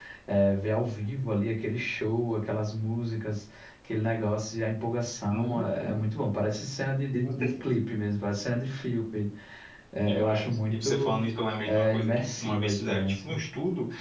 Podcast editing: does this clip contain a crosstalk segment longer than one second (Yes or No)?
Yes